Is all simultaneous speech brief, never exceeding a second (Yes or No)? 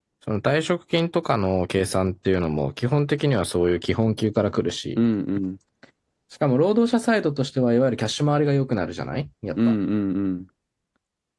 Yes